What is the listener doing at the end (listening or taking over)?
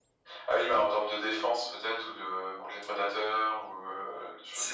taking over